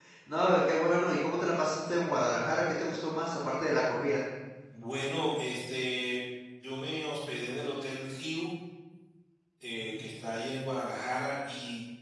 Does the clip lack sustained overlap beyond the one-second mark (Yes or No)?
Yes